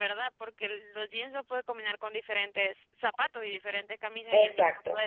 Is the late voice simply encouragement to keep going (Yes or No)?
No